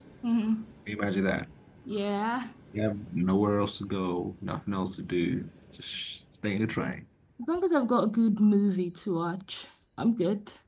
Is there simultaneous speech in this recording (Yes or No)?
No